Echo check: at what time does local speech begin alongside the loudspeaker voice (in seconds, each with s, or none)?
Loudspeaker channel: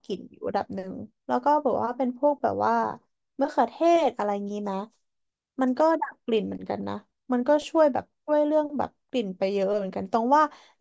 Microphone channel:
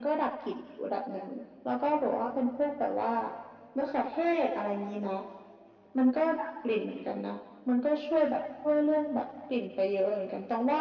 none